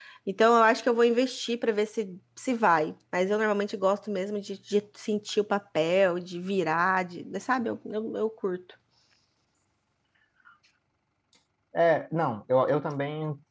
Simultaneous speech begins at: none

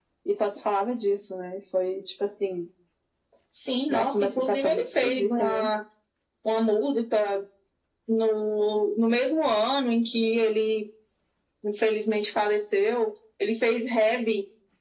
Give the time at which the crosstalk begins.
4 s

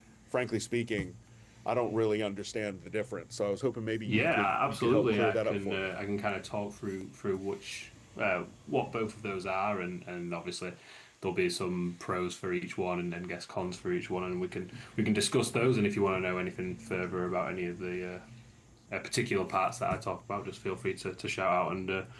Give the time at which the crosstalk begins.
4 s

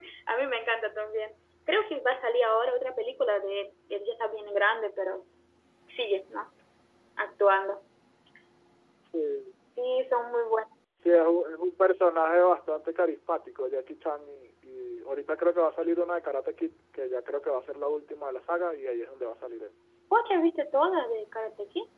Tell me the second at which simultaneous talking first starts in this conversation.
none

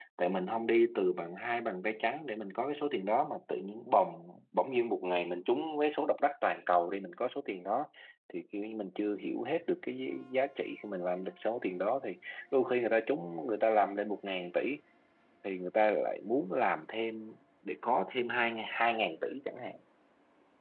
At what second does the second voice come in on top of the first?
none

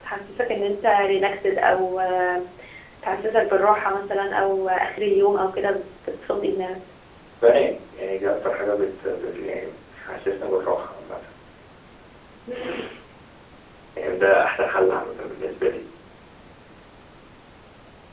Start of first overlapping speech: none

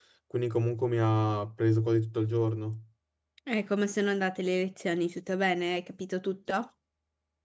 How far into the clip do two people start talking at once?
none

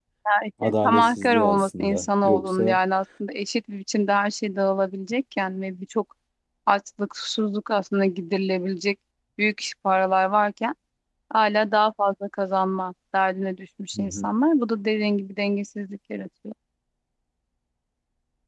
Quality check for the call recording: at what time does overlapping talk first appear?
1 s

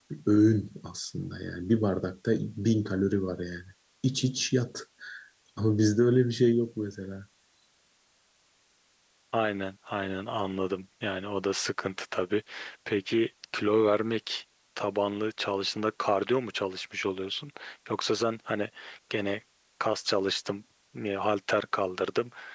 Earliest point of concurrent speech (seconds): none

